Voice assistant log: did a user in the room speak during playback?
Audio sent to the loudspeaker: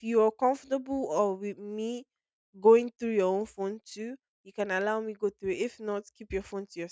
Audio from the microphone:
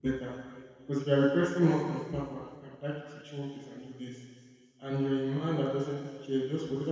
Yes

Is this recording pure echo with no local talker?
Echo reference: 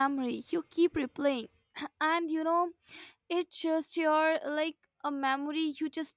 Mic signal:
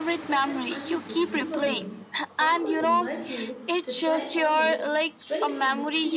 No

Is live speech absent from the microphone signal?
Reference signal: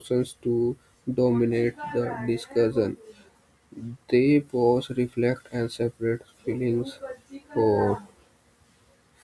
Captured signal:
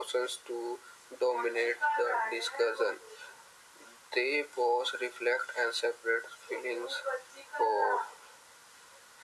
Yes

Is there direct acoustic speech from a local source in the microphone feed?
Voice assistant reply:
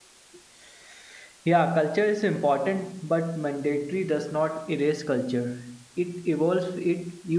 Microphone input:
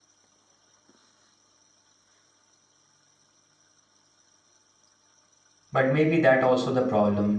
Yes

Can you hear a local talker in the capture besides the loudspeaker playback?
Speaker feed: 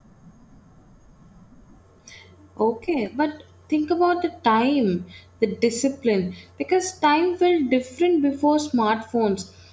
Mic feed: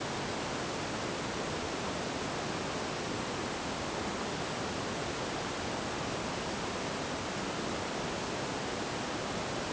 No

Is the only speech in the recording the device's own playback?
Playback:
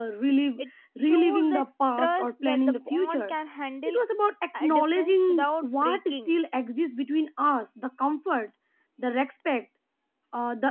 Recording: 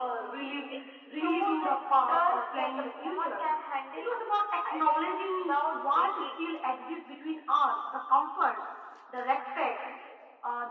Yes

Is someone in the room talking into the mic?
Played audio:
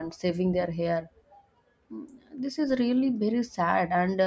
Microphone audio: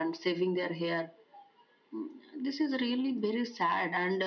No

